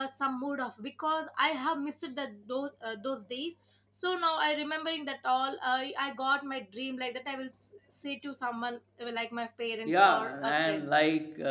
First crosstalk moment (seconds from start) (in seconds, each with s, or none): 9.8 s